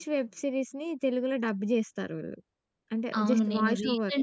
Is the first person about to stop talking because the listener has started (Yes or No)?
Yes